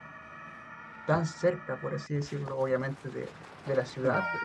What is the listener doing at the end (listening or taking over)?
listening